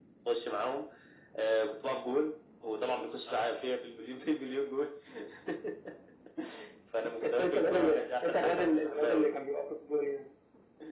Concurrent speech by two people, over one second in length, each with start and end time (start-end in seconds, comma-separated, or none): 7.2-9.3